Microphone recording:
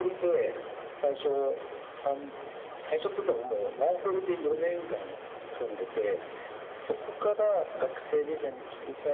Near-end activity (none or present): none